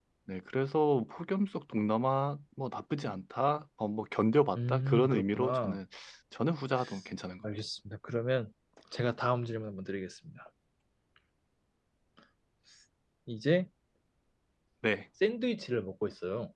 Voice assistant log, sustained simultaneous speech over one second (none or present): present